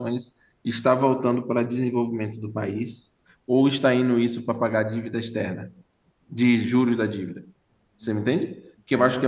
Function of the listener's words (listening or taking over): listening